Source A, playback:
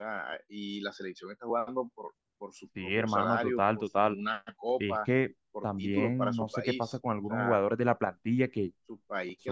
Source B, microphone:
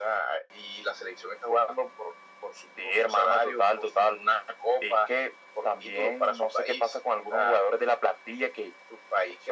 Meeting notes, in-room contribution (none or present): none